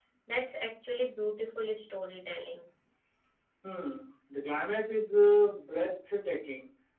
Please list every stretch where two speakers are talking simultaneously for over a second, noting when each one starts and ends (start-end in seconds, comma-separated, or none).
none